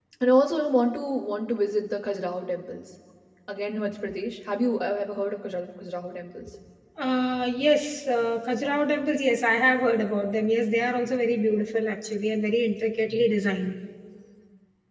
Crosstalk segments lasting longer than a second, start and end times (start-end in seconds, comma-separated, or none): none